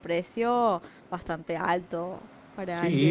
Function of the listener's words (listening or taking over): taking over